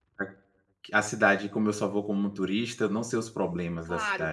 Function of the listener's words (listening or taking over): taking over